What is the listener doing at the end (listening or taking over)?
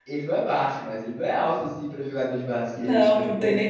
taking over